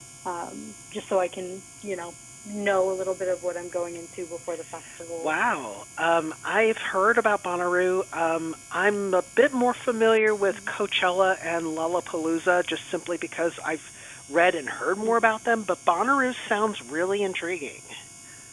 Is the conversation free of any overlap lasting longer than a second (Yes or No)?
Yes